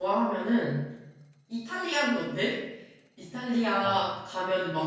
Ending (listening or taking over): listening